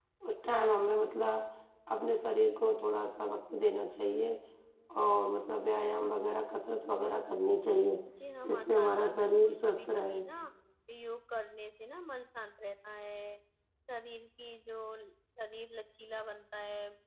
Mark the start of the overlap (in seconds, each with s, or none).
8.5 s